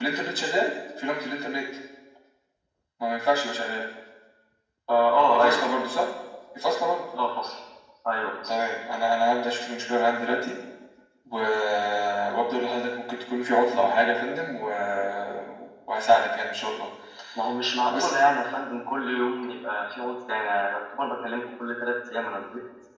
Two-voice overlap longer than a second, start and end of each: none

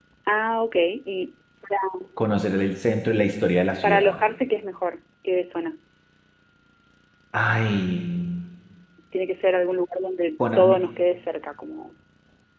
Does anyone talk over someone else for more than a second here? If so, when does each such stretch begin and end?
none

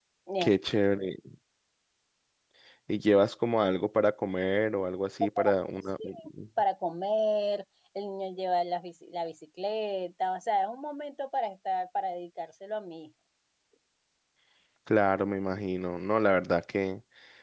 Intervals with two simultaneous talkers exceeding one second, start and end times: none

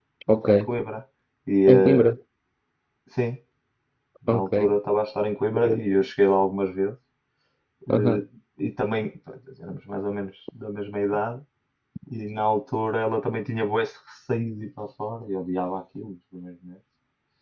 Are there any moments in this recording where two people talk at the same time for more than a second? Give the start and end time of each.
none

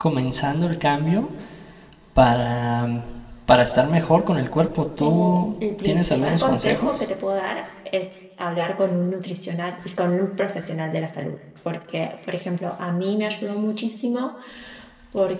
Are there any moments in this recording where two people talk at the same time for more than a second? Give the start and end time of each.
5.0-7.1

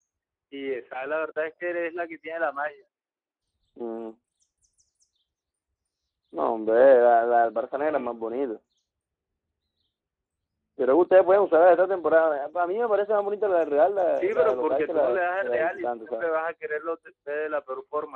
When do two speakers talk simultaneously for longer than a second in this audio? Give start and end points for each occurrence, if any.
14.2-16.3

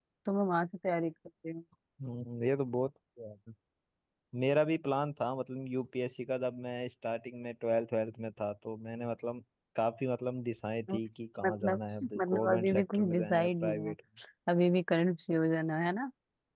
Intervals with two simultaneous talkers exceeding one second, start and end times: 11.4-13.9

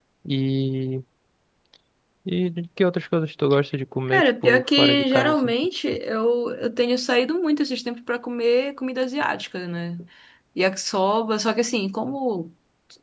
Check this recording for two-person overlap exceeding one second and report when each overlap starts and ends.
4.1-5.5

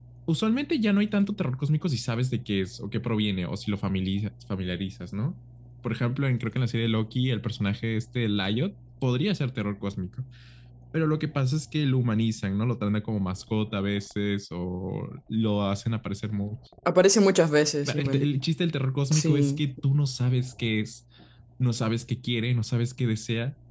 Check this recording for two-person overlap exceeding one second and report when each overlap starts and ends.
none

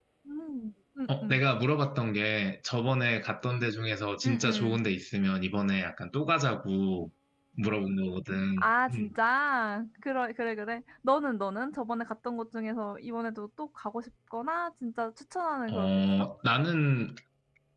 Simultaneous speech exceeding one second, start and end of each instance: none

